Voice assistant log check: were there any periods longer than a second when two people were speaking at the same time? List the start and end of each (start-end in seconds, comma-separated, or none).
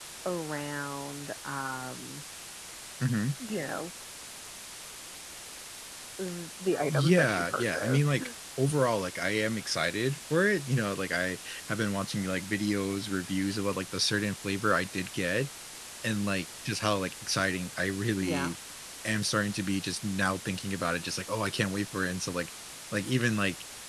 6.9-8.2